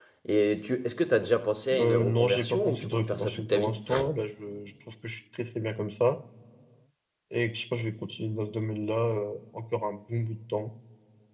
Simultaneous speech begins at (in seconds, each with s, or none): 1.7 s